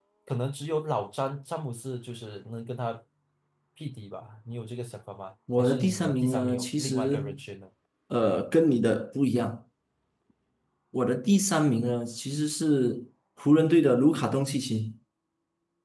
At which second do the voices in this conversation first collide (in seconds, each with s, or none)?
5.5 s